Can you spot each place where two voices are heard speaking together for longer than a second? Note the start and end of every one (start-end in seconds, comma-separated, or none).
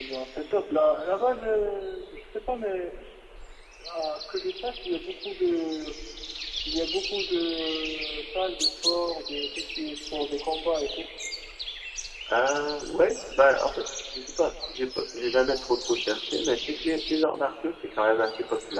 none